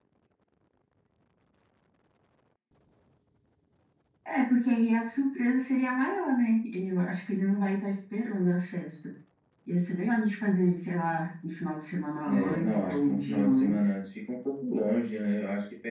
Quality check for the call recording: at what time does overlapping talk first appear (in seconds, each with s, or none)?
12.3 s